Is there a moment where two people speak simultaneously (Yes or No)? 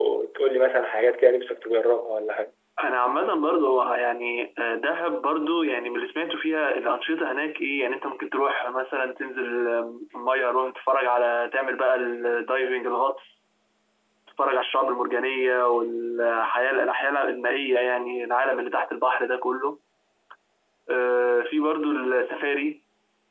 No